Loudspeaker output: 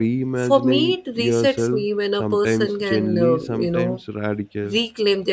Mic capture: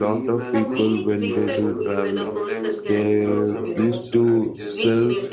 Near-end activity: present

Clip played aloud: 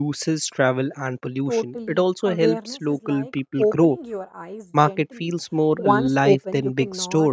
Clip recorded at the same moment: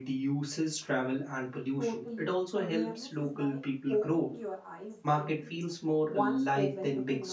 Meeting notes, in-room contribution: none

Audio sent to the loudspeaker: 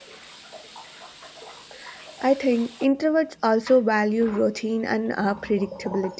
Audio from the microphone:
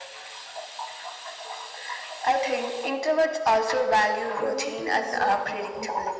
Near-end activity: present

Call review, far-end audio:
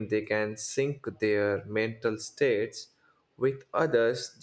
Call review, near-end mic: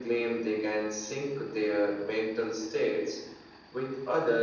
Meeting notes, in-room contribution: none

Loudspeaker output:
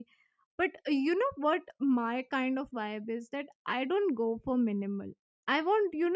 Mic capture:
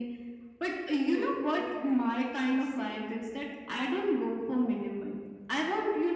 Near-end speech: present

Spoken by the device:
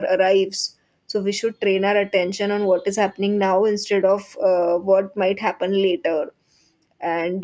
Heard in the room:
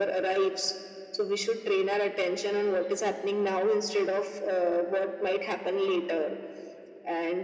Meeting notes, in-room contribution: none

